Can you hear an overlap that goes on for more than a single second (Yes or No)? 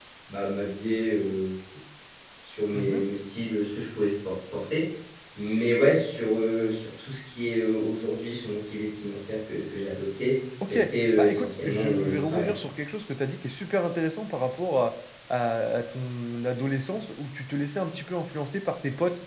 Yes